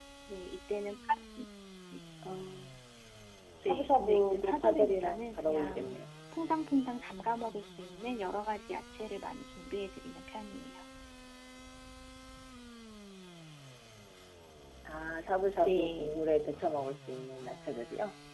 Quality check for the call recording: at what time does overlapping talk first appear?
3.7 s

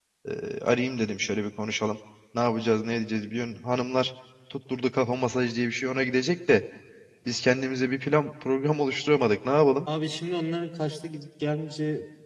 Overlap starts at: none

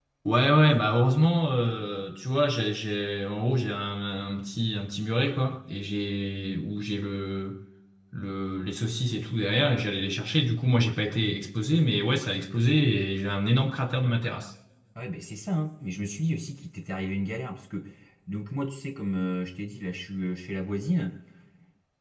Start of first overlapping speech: none

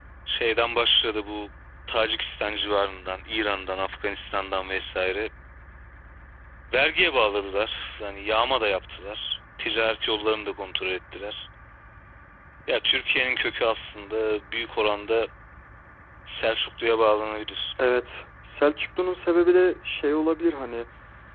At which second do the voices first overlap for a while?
none

